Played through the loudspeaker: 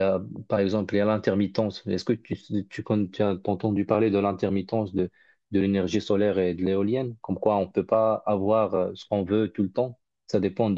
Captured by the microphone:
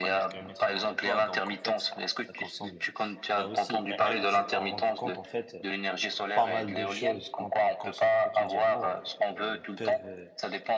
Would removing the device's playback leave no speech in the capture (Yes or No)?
No